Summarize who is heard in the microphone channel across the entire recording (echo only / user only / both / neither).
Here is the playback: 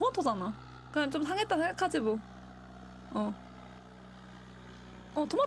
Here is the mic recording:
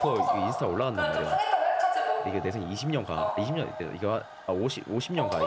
both